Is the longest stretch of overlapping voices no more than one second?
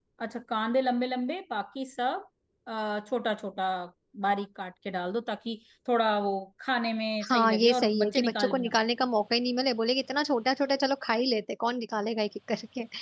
No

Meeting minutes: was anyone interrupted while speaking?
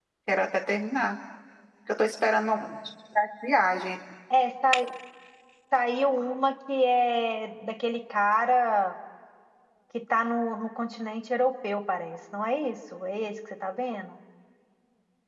No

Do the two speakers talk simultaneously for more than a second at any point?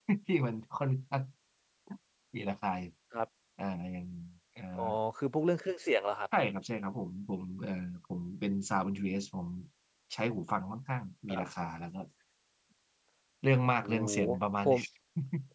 No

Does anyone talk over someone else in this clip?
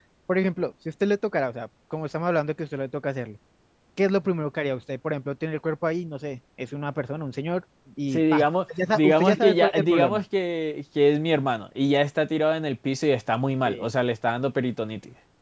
Yes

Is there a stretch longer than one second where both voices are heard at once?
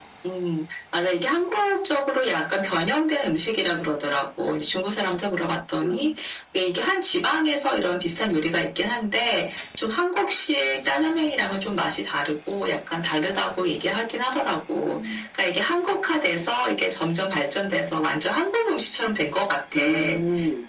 No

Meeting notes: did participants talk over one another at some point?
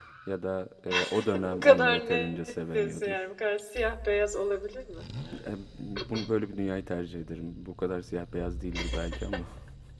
Yes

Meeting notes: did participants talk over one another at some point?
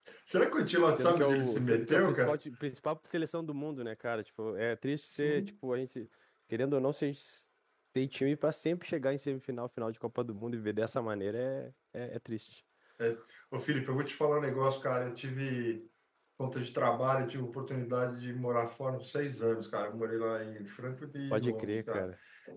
Yes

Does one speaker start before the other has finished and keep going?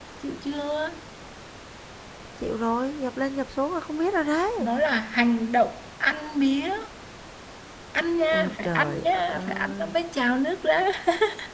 Yes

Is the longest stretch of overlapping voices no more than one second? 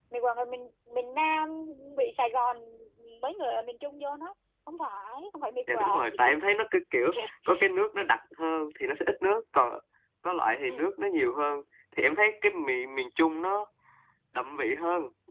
Yes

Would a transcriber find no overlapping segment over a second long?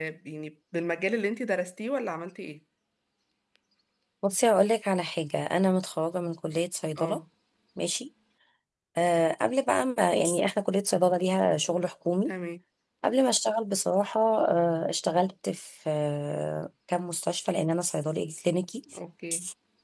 Yes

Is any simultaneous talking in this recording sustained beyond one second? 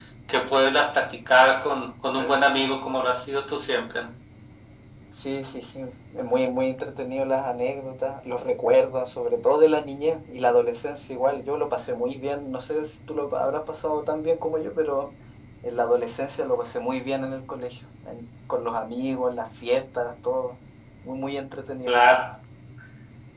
No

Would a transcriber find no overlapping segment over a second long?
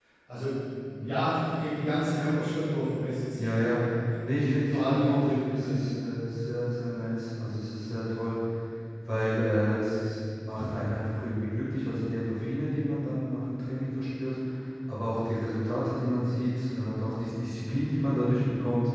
No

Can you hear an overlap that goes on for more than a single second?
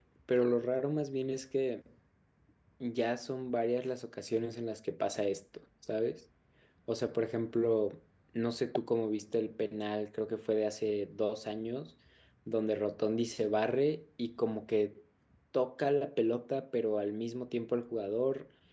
No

